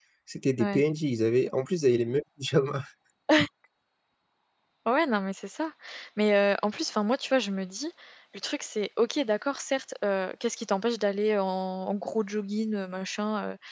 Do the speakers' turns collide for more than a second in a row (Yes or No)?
No